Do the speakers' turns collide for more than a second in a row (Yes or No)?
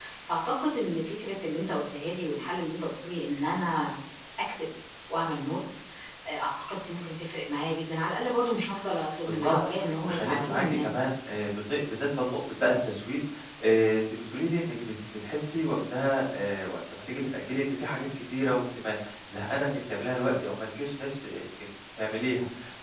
Yes